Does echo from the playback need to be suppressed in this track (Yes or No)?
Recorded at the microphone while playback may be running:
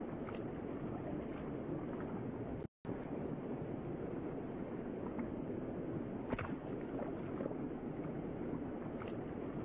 No